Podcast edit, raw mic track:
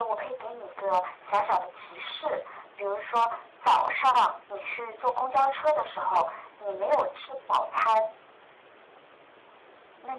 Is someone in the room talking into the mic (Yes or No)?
No